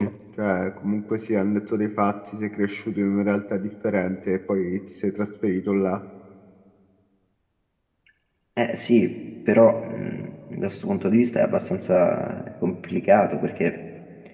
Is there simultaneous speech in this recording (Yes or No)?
No